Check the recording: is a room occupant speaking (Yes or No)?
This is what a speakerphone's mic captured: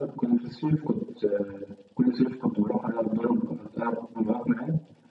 No